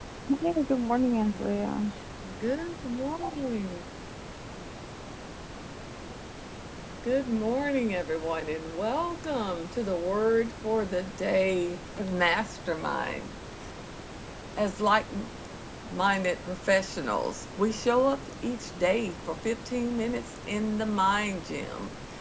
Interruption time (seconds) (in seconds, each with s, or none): none